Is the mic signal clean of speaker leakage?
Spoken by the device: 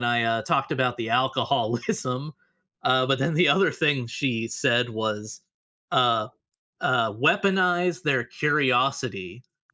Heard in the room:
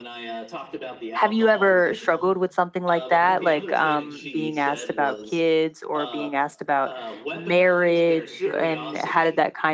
No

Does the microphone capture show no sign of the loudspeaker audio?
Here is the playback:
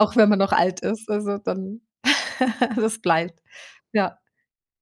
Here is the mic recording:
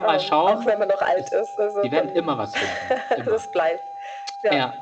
No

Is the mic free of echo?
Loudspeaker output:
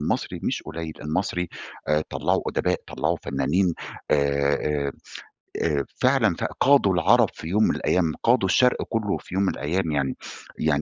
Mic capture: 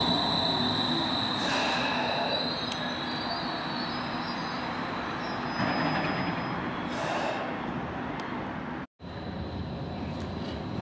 Yes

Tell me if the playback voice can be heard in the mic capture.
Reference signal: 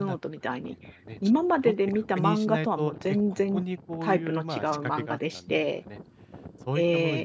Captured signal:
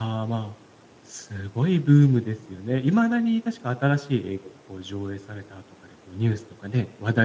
No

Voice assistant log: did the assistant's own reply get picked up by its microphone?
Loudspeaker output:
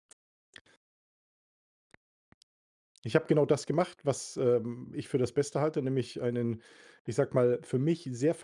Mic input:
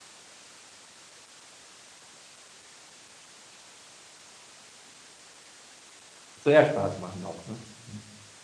No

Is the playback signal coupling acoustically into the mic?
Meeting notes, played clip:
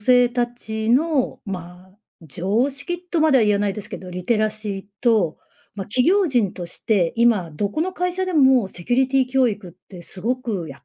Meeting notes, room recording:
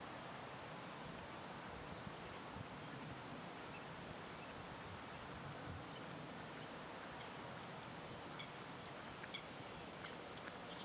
No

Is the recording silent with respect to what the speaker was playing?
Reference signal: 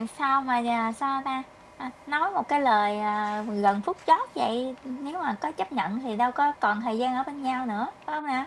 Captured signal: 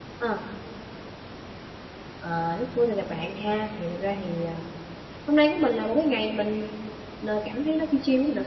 Yes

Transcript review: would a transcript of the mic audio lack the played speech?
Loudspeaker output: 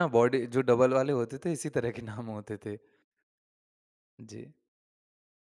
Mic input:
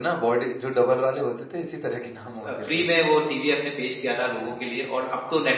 No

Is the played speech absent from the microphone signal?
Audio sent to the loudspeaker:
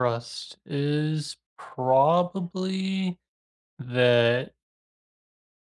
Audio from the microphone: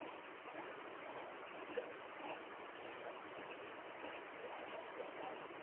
Yes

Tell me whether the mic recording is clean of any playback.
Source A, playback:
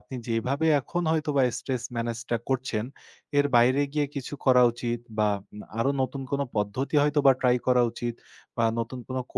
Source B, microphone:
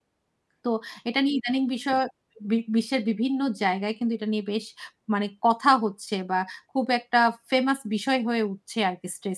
Yes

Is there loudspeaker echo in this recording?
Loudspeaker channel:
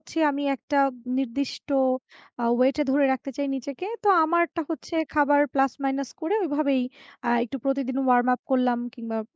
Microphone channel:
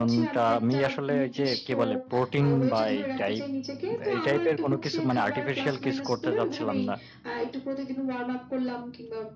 Yes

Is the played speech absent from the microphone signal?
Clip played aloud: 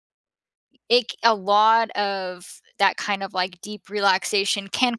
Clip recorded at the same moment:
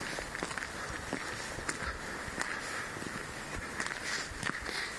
Yes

